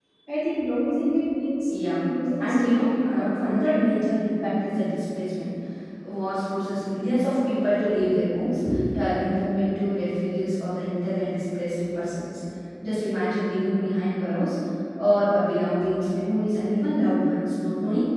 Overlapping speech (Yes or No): Yes